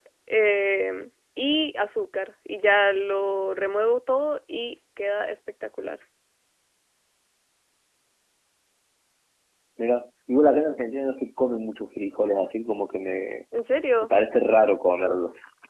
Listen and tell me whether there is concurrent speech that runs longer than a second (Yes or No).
No